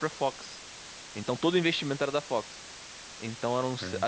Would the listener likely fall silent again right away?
Yes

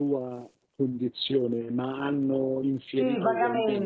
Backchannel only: No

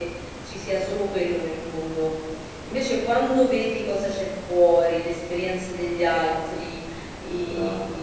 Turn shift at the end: No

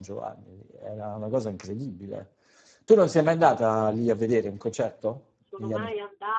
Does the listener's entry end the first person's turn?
Yes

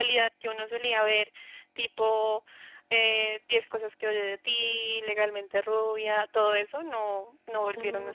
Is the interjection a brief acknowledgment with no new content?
No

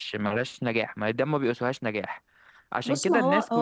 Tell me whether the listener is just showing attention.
No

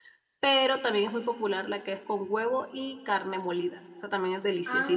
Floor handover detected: Yes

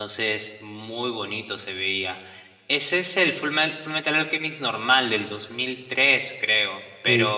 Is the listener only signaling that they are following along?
Yes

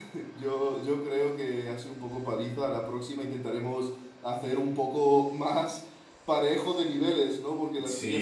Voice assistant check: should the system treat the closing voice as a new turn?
Yes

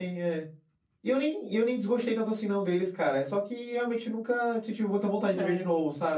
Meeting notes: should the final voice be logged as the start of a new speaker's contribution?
Yes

